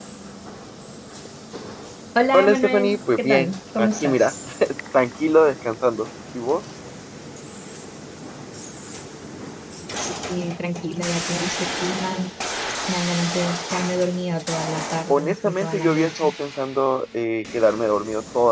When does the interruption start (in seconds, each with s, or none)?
2.3 s